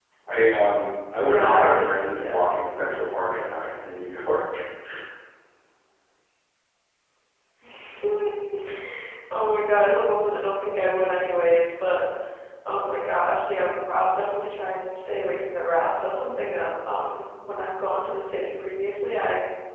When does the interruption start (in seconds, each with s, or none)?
1.2 s